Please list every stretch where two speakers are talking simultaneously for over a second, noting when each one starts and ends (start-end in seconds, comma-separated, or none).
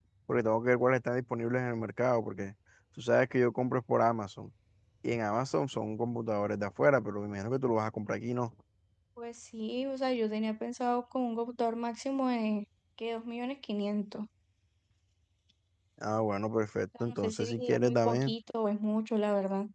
17.0-18.3